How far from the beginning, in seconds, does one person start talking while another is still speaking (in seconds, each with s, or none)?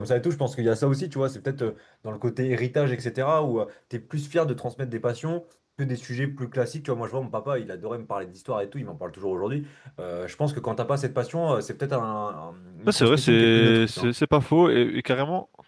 12.9 s